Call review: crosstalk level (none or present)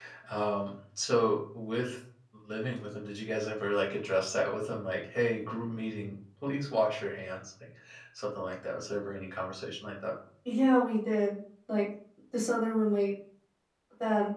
none